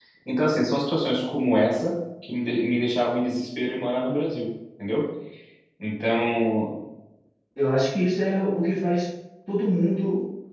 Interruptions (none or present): none